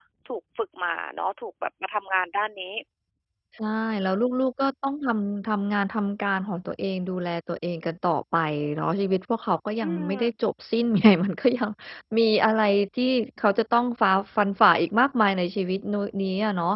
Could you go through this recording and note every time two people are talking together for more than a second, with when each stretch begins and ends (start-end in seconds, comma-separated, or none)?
none